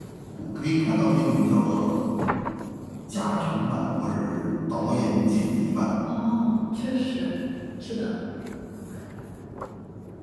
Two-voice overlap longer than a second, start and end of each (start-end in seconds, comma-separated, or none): none